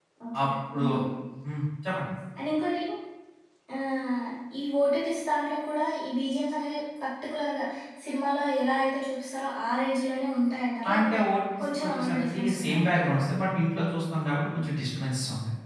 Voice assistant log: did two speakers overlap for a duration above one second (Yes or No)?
Yes